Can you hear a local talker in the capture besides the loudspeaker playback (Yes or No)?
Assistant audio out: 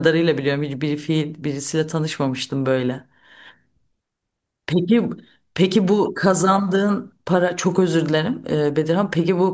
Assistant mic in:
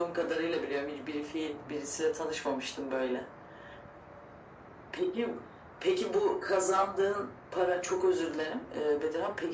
No